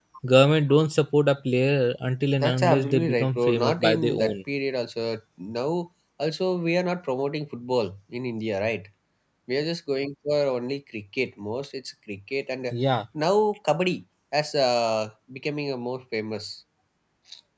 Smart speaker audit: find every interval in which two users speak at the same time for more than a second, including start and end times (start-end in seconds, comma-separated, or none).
2.4-4.3